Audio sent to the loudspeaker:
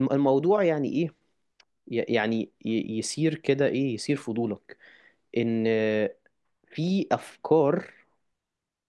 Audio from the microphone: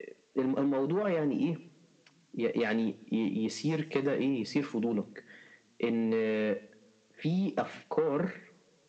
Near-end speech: none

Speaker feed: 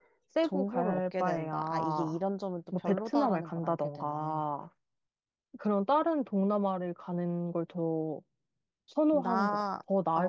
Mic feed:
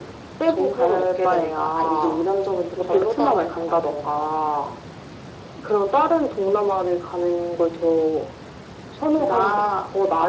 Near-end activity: none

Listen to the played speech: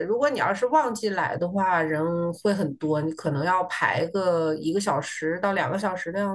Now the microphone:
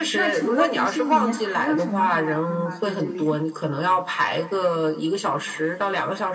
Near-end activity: present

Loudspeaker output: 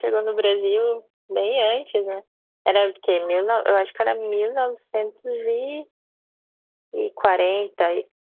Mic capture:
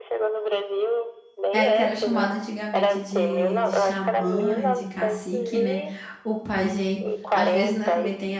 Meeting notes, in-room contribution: present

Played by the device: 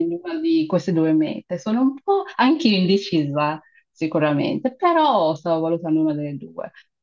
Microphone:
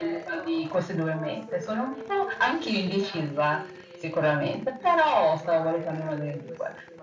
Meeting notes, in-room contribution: present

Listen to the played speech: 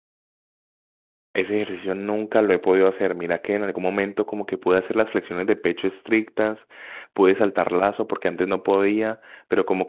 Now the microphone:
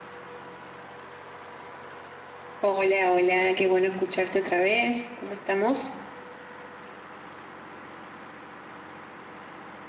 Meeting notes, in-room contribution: present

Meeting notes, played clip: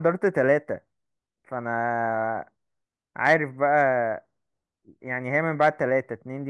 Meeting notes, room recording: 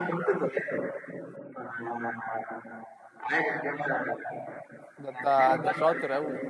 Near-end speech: present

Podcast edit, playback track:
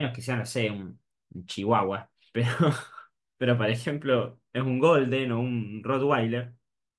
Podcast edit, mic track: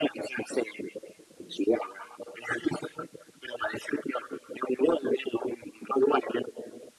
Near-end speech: none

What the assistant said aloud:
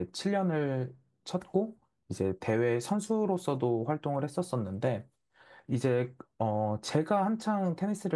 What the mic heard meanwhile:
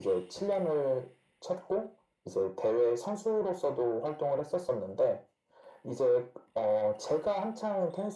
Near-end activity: none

